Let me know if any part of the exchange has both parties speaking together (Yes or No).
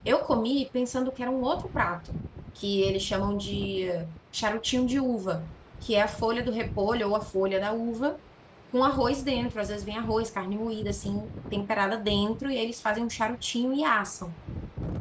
No